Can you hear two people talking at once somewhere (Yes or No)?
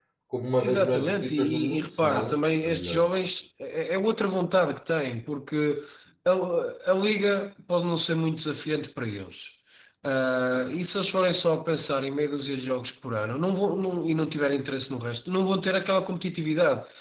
Yes